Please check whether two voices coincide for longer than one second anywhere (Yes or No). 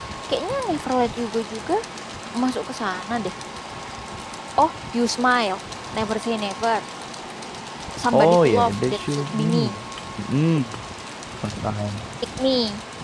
Yes